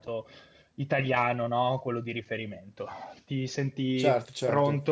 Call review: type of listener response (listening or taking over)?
listening